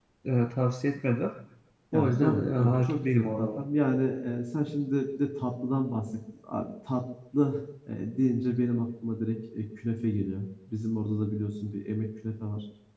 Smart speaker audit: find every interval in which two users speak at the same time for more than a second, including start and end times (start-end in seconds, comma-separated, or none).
1.9-3.6